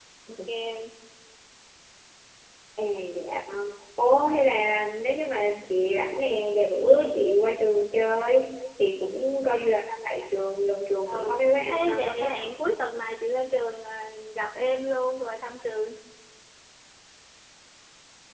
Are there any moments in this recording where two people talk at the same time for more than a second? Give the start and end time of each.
11.1-12.3

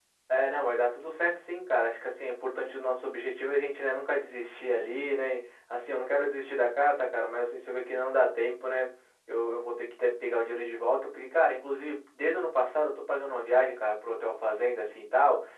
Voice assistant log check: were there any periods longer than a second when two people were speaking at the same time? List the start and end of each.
none

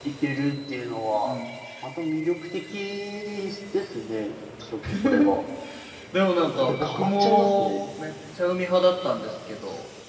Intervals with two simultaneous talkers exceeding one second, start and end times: 6.5-7.8

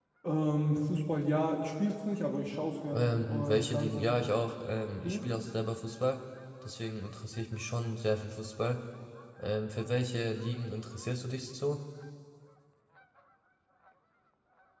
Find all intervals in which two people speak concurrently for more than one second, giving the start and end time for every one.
2.9-4.1

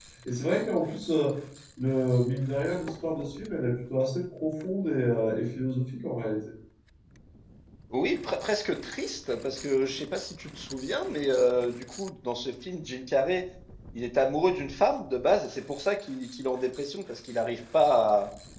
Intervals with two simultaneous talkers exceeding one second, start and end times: none

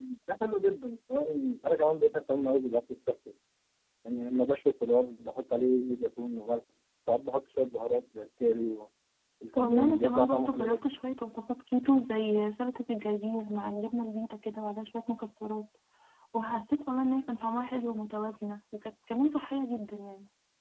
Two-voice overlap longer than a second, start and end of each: 9.6-10.9

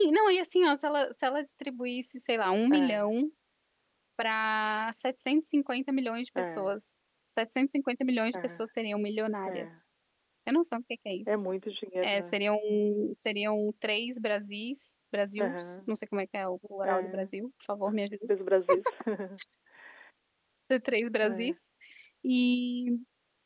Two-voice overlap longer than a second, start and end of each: none

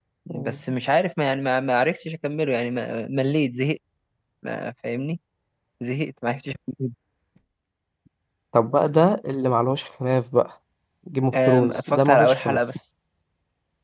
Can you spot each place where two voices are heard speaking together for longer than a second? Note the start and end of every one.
11.3-12.6

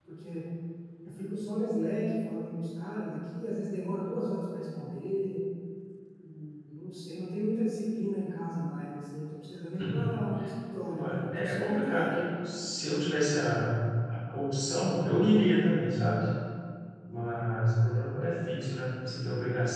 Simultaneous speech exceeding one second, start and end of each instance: 10.9-12.2

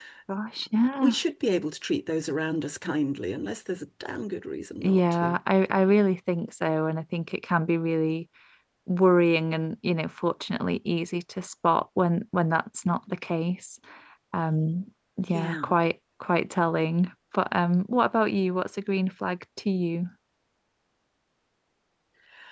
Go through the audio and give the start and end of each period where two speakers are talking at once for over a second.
none

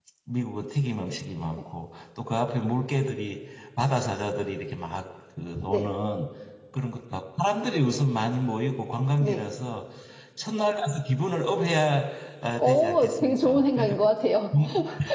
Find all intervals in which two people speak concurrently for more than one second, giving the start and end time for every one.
12.6-13.9

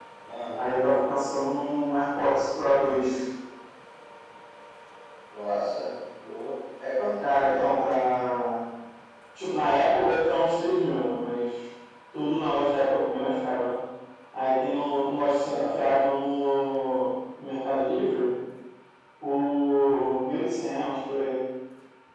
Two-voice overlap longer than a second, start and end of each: none

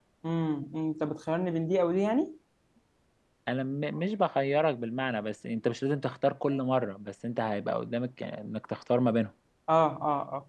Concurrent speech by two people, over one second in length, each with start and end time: none

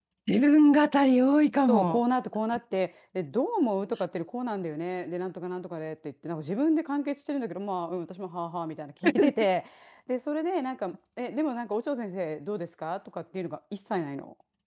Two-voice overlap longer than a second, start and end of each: none

